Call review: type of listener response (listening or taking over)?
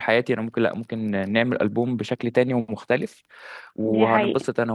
listening